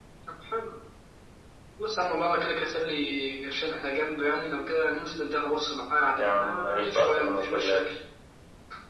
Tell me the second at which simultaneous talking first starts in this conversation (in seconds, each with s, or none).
6.2 s